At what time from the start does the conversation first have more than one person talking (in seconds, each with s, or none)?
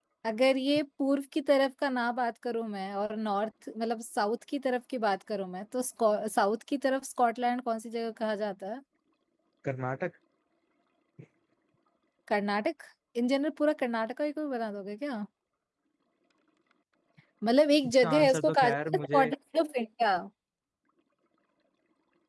18.0 s